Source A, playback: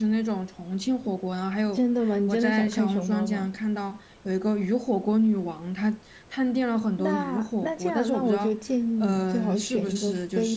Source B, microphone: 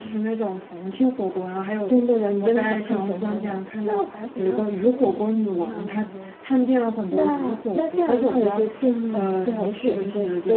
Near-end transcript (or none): 那我还比较推荐你去云南玩呢。